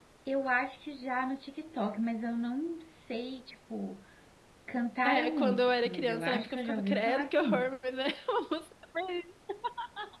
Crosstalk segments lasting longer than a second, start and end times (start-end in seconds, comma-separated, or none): 5.0-7.7